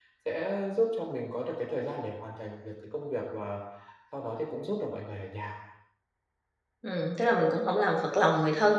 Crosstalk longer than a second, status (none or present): none